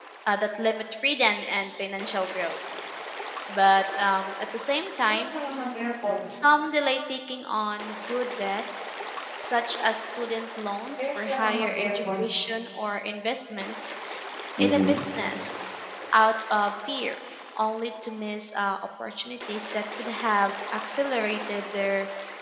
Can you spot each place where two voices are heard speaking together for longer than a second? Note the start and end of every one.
11.0-12.2

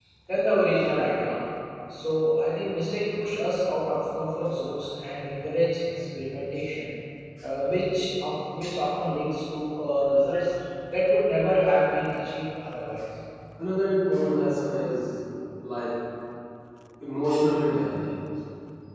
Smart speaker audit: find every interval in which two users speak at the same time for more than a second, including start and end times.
none

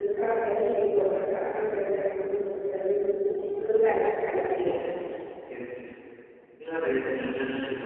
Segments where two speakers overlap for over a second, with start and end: none

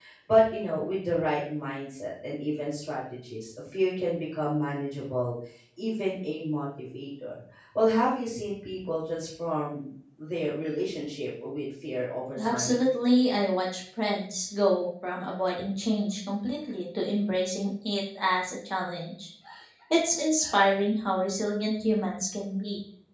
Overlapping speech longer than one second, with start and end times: none

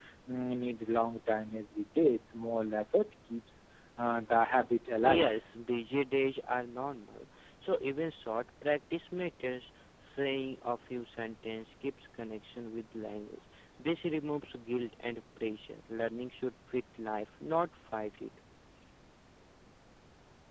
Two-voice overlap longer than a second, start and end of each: none

